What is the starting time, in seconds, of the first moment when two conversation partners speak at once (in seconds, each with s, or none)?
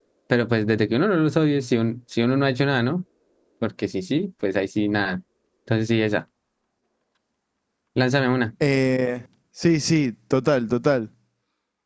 none